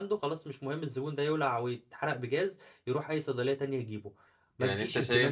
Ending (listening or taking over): taking over